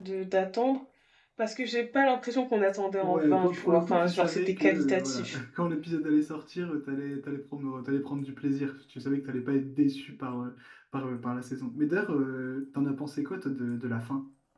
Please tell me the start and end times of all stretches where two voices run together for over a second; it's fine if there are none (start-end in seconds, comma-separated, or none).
3.0-5.4